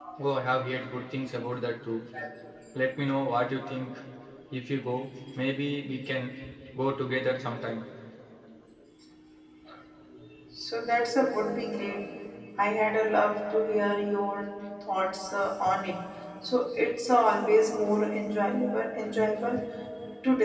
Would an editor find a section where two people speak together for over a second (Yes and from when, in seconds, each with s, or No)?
No